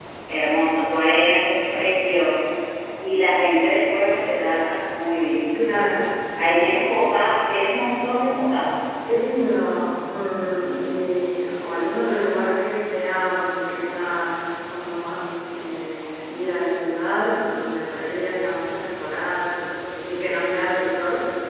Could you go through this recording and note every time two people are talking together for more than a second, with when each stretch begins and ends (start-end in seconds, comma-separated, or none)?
none